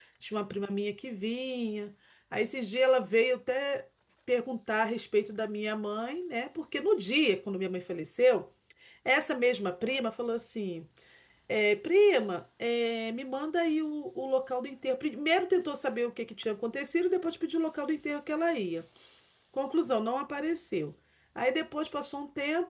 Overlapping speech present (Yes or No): No